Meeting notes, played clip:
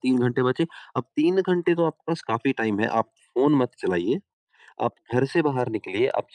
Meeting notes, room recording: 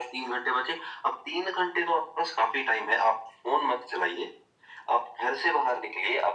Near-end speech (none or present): none